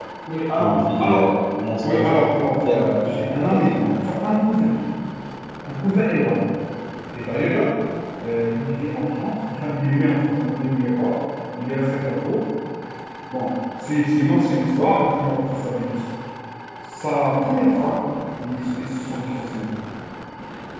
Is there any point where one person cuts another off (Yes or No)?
Yes